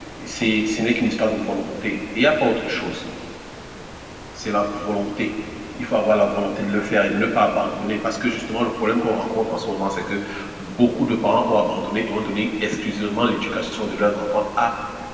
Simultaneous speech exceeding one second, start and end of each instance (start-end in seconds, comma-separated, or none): none